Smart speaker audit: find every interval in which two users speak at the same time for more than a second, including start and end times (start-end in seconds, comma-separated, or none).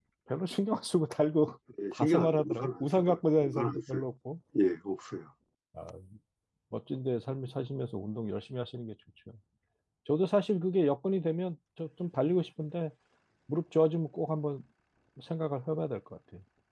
1.9-4.0